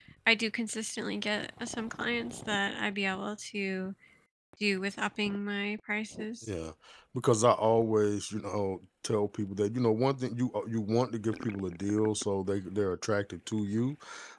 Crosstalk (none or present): none